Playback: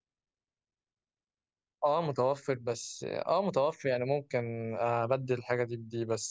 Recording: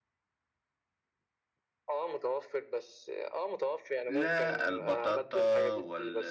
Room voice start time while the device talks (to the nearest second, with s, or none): 4 s